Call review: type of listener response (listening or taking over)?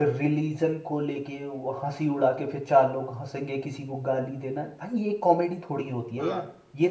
listening